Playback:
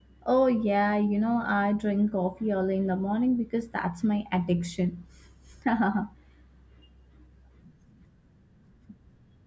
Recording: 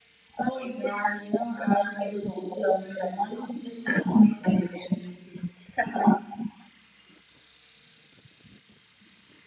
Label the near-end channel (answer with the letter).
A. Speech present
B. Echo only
B